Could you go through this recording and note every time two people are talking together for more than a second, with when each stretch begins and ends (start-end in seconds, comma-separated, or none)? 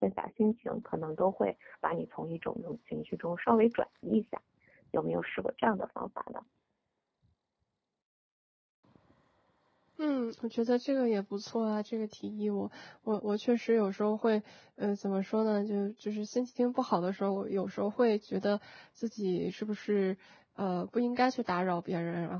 none